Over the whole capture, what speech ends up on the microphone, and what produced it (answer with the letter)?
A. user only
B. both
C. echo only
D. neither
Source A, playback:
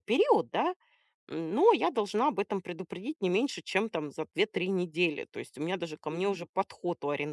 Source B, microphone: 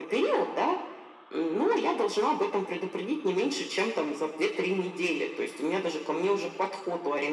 C